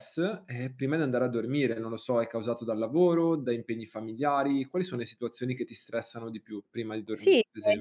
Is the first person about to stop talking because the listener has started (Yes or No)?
Yes